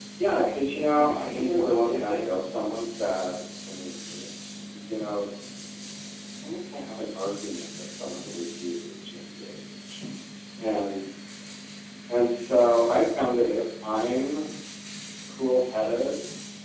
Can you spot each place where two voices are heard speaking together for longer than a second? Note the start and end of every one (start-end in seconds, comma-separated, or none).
0.7-2.2